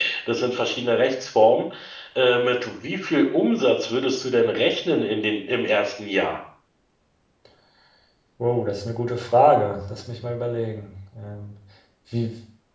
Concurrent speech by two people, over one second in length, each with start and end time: none

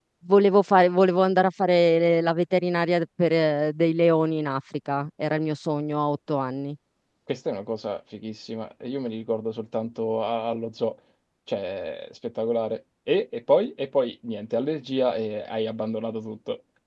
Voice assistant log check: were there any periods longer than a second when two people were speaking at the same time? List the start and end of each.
none

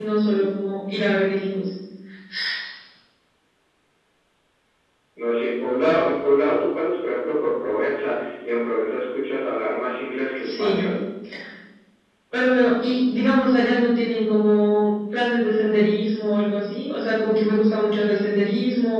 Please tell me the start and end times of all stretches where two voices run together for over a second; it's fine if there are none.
none

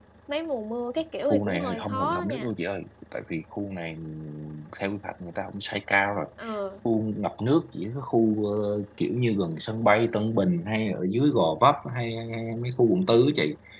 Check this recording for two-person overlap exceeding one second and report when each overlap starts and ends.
1.2-2.5

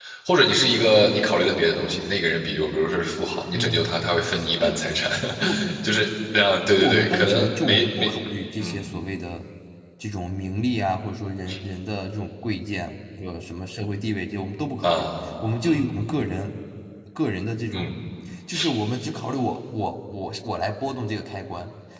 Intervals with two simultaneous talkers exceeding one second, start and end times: 6.7-8.1

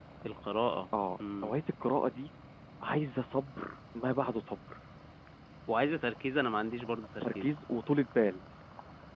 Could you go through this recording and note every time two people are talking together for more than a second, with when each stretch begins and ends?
none

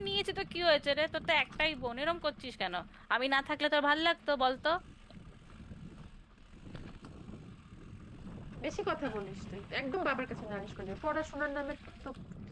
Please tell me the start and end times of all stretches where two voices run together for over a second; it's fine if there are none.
none

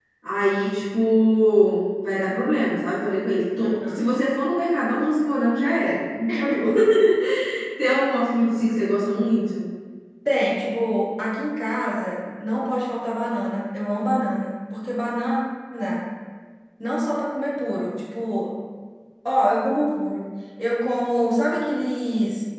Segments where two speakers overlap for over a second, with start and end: none

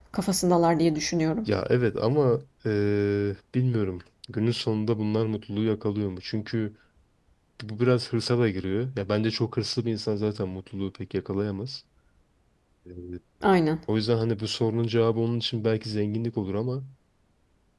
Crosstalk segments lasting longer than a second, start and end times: none

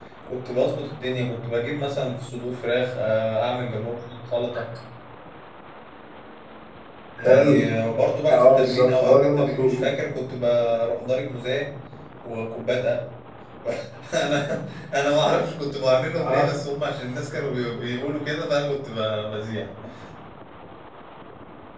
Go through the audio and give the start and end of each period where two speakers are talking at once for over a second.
8.3-9.8

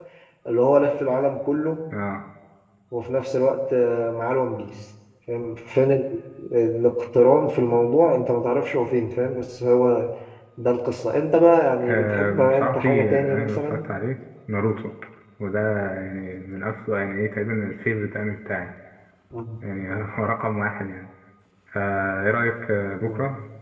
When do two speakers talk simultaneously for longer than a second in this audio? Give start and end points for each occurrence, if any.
11.9-13.9

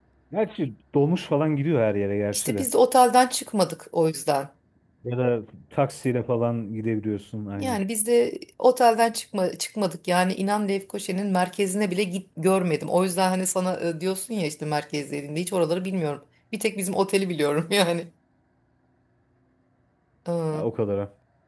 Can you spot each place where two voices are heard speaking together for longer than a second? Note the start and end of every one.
none

